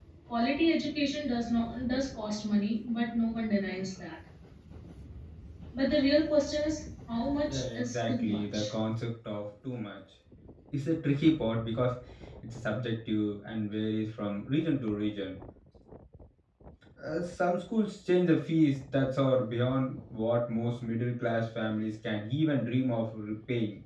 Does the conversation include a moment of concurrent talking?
Yes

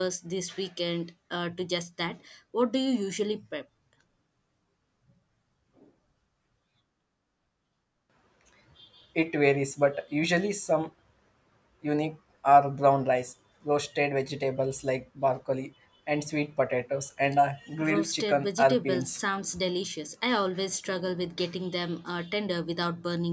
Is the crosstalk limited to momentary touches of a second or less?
No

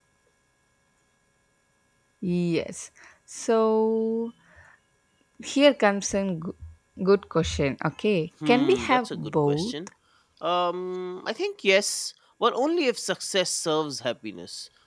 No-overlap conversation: No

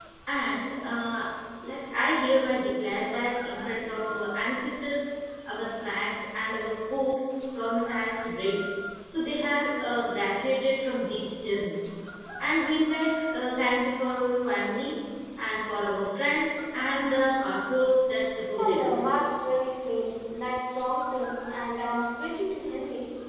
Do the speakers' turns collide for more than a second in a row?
No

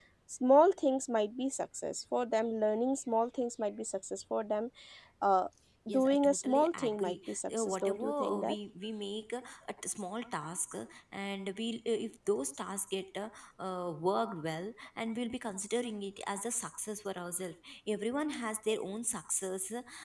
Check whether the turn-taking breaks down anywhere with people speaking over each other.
Yes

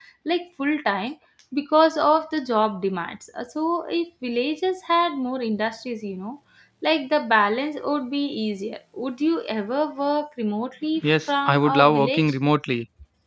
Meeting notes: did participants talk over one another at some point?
Yes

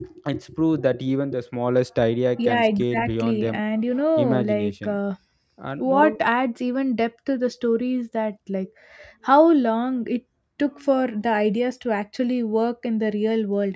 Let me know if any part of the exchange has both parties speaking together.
Yes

